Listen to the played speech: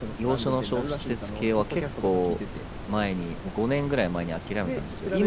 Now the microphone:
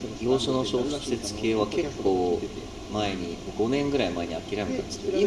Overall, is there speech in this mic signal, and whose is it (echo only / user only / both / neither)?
echo only